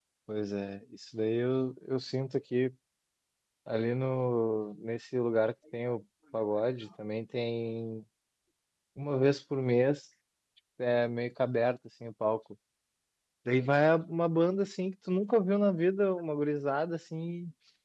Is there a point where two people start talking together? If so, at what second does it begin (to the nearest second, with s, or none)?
none